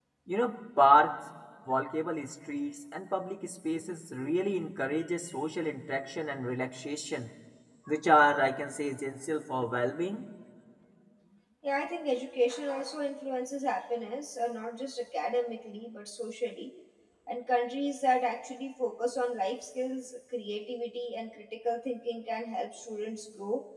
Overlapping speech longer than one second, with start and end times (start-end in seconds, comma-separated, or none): none